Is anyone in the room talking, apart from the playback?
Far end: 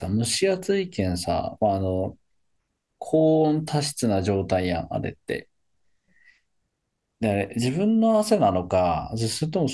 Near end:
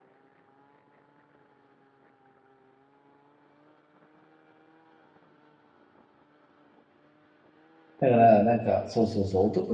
Yes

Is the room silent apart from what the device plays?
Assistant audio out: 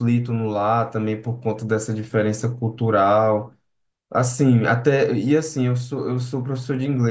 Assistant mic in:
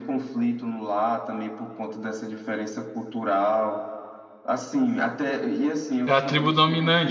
No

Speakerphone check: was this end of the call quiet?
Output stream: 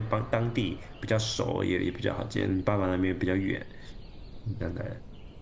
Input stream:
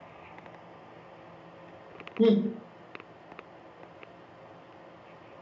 No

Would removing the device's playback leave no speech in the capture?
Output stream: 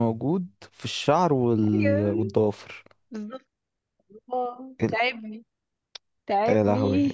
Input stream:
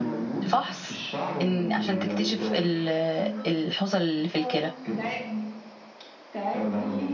No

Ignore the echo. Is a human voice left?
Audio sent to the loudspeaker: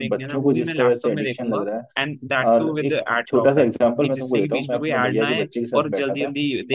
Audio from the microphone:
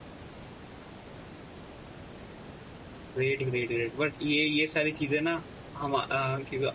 Yes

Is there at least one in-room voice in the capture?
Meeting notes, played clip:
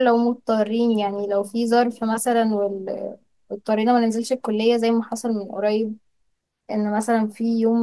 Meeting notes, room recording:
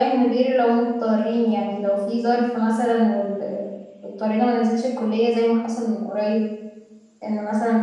No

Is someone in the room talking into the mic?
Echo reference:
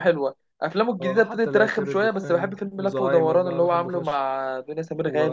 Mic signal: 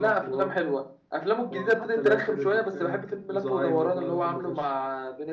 No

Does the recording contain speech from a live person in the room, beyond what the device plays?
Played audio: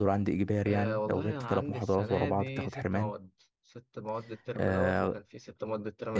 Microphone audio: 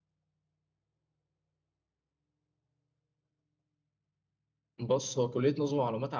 Yes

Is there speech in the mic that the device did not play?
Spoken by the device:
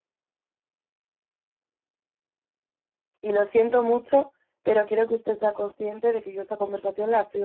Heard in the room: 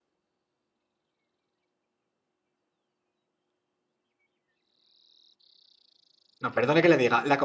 Yes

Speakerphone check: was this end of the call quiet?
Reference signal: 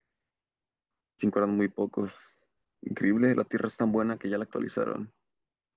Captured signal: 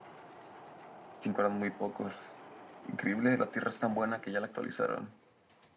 Yes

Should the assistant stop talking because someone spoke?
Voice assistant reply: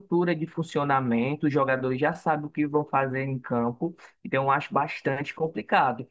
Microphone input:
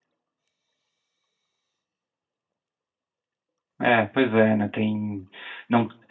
Yes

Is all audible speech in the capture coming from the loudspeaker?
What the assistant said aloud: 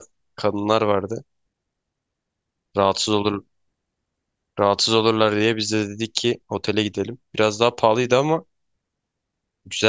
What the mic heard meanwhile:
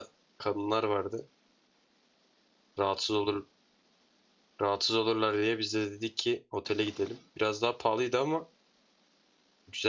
Yes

